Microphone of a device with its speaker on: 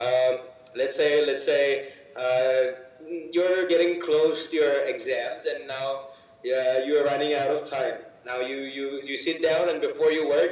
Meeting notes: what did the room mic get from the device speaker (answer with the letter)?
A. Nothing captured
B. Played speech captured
B